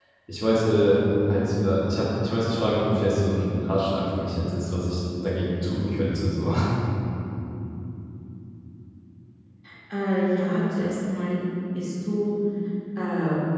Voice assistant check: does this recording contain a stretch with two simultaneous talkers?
No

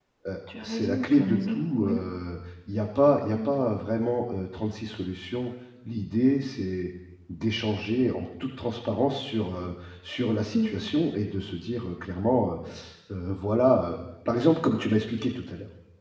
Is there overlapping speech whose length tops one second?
Yes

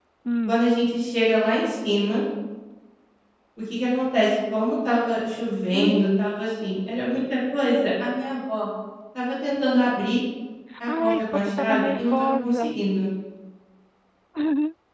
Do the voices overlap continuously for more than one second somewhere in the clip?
Yes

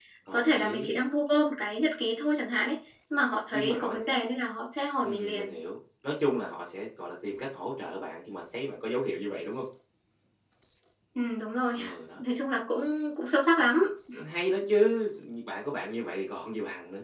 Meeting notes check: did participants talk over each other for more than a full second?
No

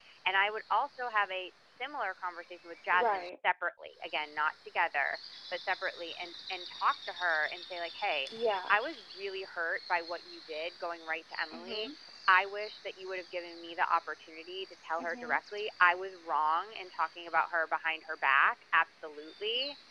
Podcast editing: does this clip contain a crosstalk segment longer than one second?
No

